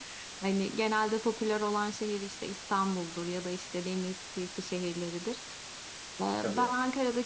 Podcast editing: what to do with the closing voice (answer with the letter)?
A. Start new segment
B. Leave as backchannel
B